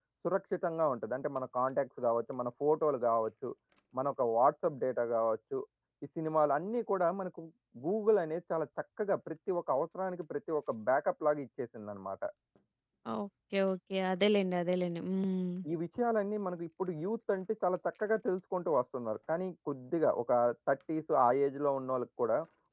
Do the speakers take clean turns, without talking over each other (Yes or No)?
Yes